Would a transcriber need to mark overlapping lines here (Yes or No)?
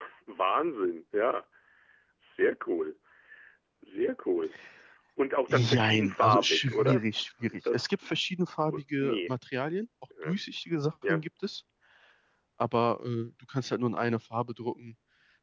Yes